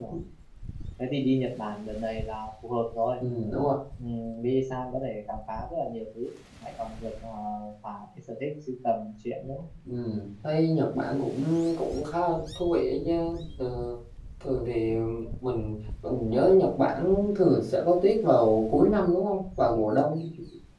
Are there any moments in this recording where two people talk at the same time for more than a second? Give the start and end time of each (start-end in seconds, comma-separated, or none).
none